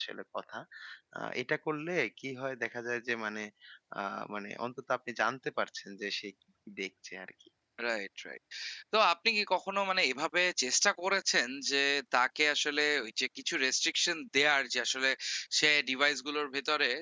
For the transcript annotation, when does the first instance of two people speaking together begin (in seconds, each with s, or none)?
none